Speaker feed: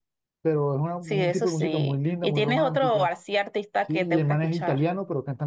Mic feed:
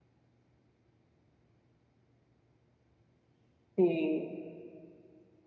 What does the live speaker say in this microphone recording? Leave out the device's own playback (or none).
sí.